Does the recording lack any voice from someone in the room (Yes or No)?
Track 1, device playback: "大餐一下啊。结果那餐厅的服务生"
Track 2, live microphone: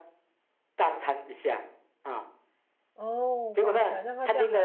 No